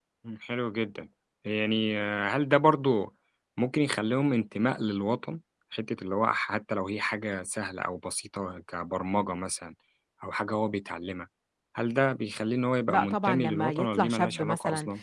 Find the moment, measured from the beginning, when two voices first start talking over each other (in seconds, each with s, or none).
12.9 s